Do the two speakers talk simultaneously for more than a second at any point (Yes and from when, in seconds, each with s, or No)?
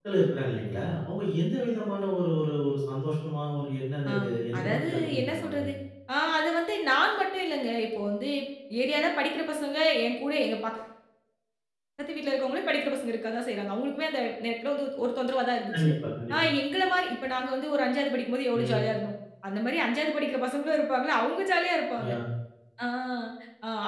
Yes, from 4.1 s